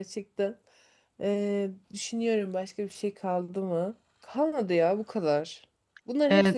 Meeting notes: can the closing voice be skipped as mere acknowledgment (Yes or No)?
Yes